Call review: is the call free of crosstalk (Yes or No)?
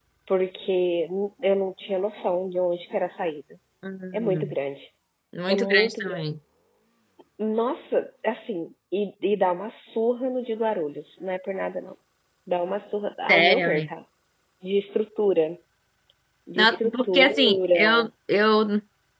No